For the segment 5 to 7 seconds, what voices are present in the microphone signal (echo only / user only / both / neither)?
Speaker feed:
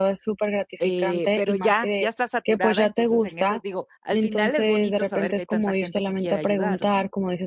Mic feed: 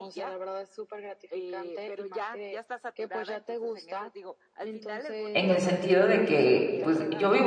both